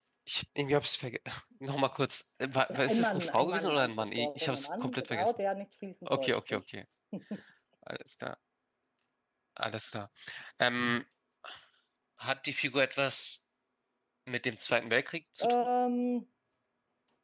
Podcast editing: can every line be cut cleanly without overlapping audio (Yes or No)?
No